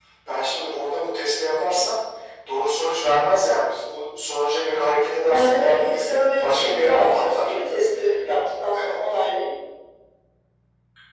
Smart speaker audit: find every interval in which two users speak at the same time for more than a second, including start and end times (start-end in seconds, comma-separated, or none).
5.3-7.5